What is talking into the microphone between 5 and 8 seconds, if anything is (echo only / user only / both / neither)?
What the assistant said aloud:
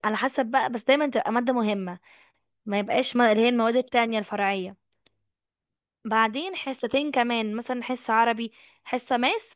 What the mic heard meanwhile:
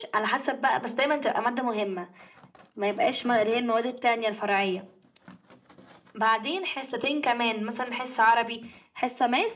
echo only